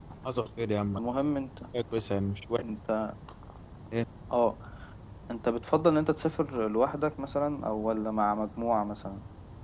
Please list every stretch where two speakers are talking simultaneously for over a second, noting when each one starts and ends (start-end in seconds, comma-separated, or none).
none